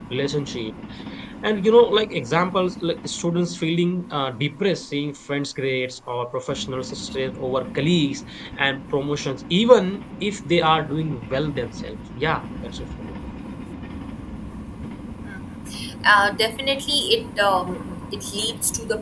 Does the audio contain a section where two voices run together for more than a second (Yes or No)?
No